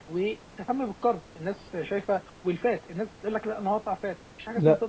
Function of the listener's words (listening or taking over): taking over